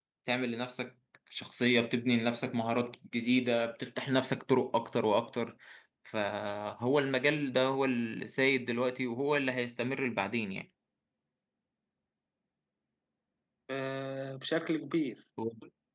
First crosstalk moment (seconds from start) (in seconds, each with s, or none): none